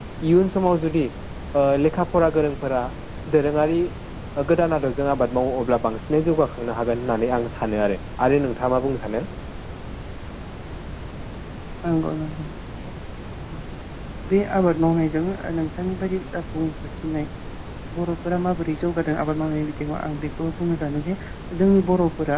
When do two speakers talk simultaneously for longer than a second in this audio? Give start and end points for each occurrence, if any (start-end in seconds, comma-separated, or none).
none